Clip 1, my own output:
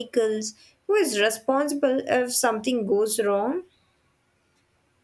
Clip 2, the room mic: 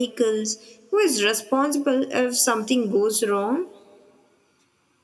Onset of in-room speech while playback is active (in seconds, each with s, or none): none